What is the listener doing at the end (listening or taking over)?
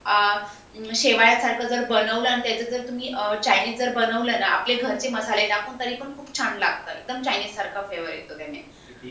listening